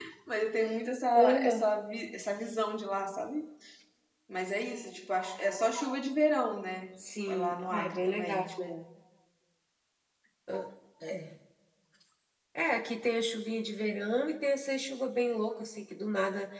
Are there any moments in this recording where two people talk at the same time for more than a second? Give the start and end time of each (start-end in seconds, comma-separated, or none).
7.3-8.7